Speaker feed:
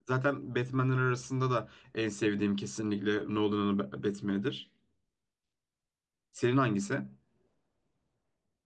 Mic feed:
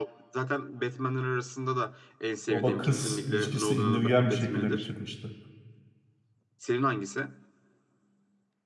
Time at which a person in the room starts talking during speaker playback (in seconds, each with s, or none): 2.5 s